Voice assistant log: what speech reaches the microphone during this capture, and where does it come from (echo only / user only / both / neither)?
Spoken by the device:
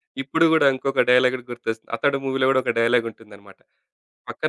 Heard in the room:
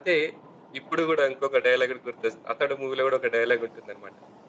echo only